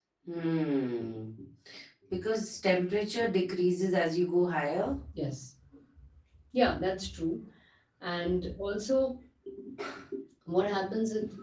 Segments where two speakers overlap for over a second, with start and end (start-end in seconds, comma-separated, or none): none